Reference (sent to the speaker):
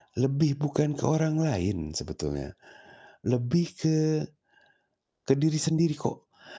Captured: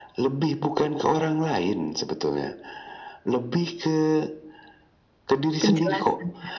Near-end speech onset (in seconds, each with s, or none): 5.6 s